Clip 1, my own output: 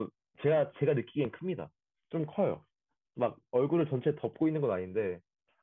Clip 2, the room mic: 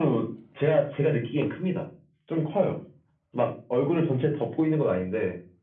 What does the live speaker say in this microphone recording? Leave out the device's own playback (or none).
none